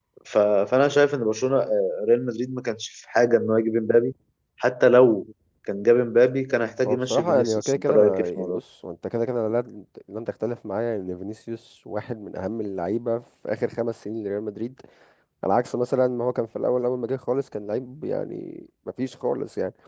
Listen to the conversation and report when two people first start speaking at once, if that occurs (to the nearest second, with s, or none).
7 s